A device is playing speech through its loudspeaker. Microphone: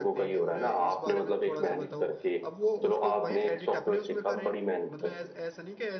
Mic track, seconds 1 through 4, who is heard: both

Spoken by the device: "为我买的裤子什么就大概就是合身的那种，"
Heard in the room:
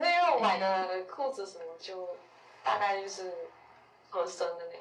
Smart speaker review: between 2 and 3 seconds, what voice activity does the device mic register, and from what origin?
echo only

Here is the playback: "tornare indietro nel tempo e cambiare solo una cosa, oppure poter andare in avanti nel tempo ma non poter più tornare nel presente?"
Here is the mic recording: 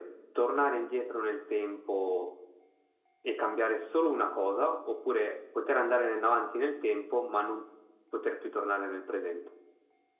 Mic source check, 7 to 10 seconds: echo only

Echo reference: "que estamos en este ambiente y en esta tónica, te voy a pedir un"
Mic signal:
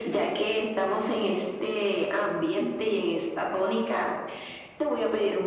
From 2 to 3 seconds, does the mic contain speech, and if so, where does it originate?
echo only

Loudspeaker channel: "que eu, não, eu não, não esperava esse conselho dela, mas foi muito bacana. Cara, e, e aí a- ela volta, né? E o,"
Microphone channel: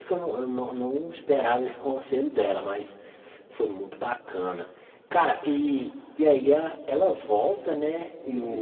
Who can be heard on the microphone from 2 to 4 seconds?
echo only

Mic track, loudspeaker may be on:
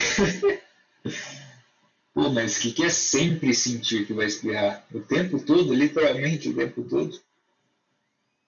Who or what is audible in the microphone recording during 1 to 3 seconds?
echo only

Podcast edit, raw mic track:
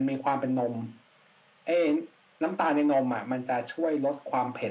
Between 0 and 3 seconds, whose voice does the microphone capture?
echo only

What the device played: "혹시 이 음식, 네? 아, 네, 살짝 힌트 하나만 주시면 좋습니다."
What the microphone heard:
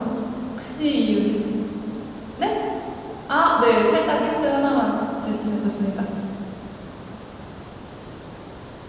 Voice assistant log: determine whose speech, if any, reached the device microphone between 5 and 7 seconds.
echo only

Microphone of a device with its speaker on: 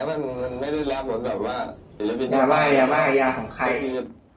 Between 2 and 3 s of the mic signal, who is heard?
both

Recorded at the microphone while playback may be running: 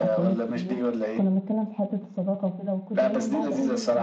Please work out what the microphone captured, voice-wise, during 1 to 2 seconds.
both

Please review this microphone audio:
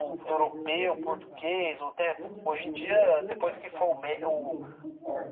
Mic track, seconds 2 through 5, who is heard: both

